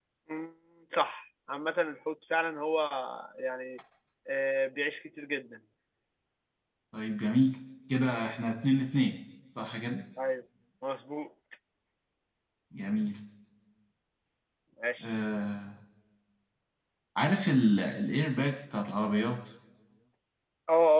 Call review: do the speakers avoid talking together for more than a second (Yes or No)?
Yes